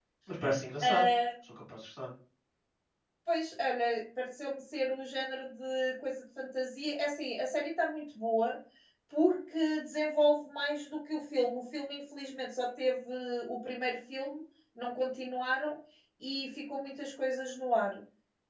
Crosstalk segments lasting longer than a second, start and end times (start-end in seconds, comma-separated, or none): none